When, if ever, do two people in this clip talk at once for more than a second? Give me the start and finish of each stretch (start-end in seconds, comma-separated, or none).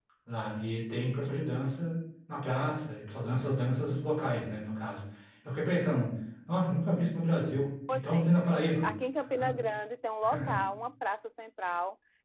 none